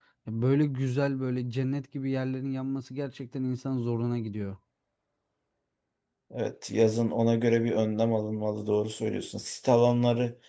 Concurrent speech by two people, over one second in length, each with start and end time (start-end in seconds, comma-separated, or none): none